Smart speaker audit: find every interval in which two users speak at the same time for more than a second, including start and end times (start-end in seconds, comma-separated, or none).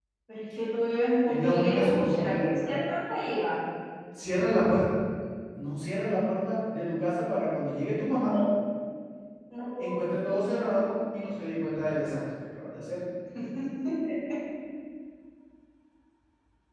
1.3-2.7